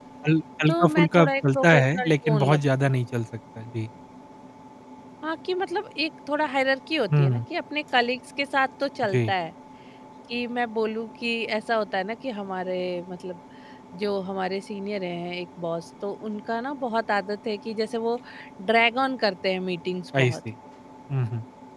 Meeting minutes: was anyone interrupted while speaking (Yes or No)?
Yes